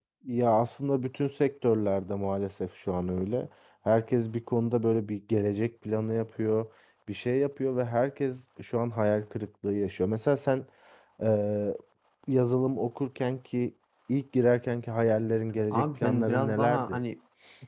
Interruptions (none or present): present